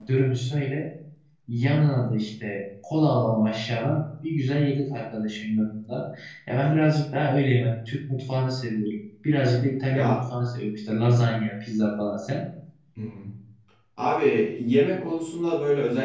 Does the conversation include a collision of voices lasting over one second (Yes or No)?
No